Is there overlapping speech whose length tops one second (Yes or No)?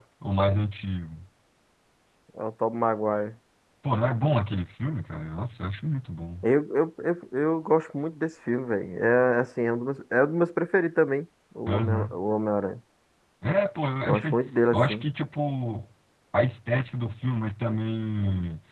No